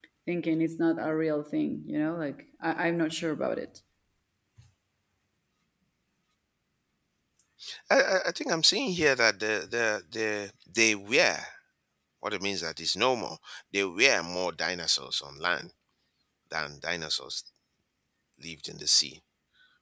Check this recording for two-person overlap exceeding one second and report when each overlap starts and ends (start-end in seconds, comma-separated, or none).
none